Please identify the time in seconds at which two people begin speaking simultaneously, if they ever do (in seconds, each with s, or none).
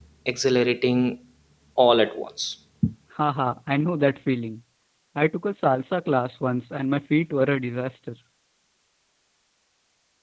none